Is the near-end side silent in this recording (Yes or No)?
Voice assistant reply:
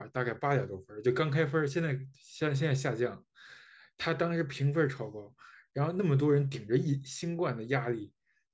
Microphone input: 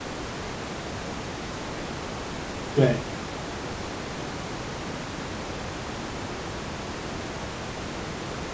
No